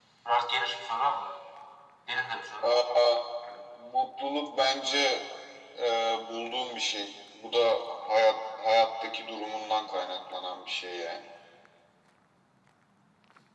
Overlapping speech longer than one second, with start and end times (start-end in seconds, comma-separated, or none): none